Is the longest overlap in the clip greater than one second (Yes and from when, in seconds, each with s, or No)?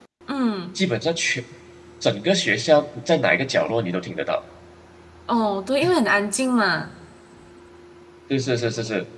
No